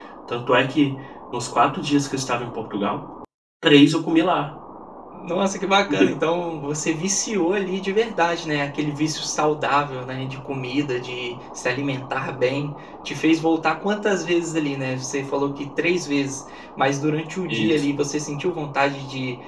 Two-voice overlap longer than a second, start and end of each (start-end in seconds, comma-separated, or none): none